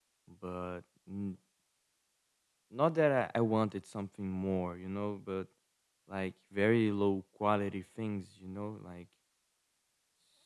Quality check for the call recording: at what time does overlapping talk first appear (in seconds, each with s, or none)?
none